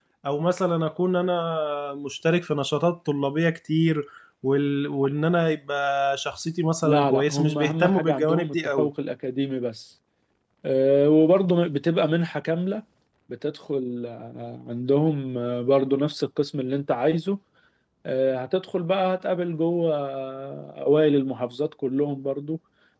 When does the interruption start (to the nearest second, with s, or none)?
7 s